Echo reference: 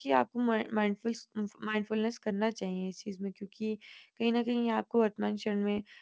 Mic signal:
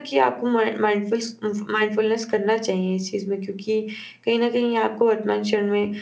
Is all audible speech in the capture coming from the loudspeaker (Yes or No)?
Yes